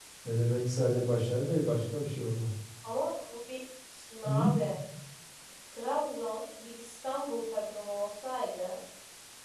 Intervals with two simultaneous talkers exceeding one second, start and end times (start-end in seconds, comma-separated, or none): none